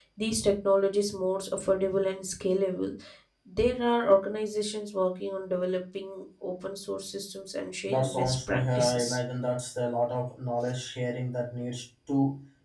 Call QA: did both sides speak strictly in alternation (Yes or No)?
No